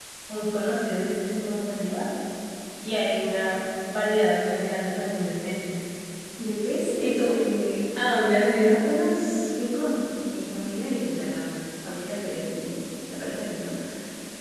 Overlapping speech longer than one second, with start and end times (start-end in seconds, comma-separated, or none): none